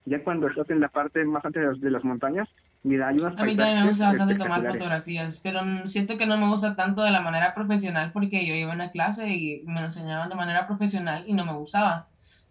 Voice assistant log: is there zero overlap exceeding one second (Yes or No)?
No